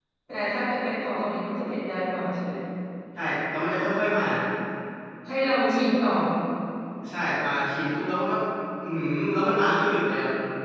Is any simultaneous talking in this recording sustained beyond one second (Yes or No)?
No